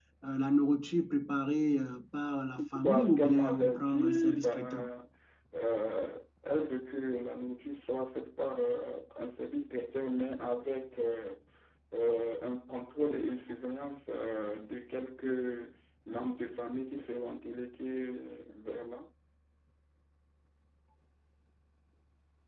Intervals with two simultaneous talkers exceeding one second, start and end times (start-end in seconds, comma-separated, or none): 2.8-4.8